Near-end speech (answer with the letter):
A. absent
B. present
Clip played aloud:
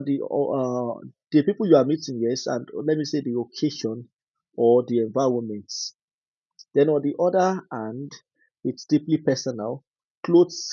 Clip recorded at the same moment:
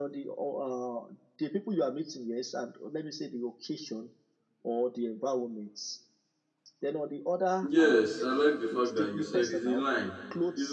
B